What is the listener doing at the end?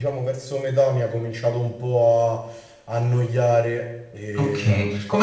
taking over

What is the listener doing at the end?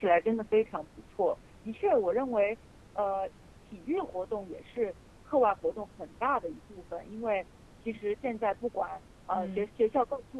listening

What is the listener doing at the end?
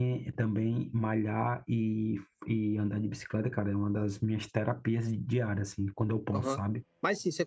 taking over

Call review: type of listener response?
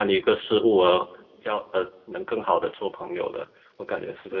taking over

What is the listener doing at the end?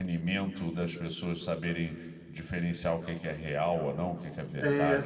taking over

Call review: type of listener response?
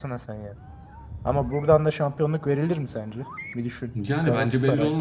taking over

